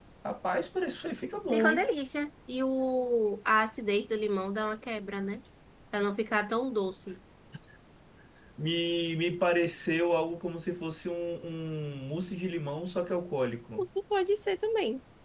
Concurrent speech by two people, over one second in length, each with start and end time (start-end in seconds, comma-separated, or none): none